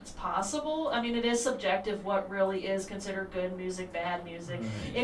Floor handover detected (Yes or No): No